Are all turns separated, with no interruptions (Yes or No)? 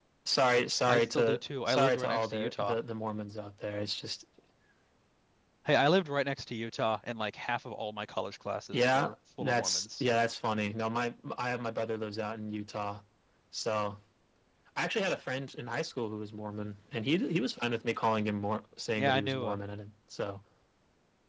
No